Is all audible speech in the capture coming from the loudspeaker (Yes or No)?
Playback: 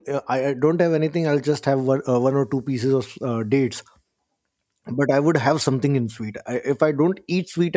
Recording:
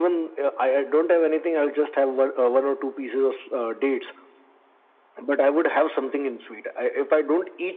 Yes